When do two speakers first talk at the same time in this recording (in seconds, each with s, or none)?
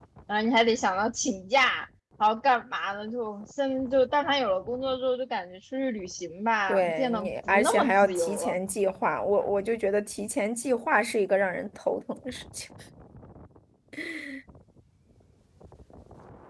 6.7 s